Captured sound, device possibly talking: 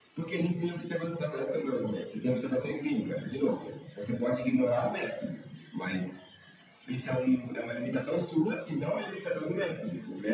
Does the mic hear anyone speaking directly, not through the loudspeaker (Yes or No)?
No